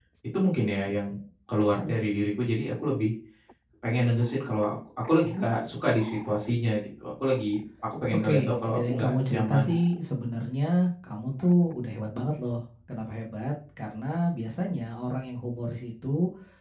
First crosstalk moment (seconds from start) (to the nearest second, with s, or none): 8 s